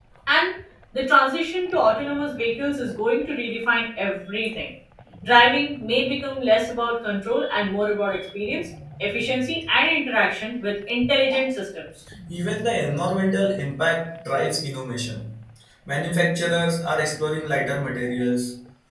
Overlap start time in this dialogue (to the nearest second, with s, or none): none